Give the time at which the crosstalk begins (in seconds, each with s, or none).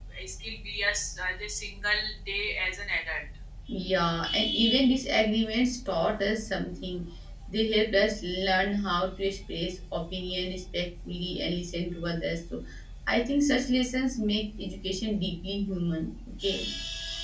none